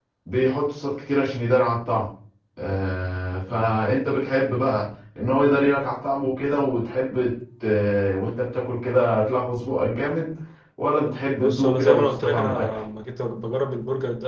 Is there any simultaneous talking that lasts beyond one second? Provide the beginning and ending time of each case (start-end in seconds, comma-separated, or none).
11.4-12.8